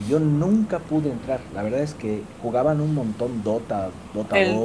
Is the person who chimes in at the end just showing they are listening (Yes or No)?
No